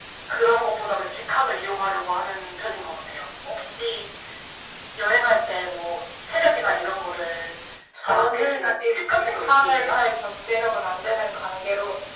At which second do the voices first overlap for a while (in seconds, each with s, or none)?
8.0 s